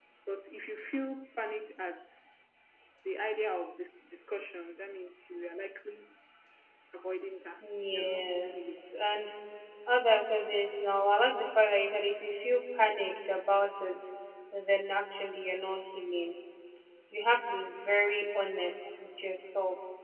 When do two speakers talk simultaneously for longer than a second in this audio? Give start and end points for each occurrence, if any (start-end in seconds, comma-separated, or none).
7.6-8.9